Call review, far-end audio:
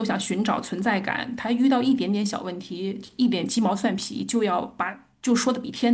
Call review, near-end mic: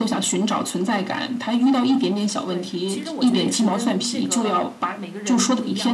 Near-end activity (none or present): present